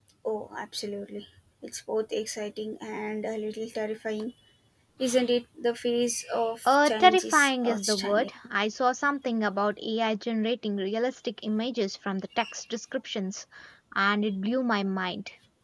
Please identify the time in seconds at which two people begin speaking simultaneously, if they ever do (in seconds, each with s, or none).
6.7 s